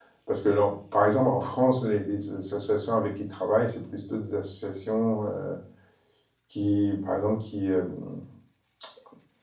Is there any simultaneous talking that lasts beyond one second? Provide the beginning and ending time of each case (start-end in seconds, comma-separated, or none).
none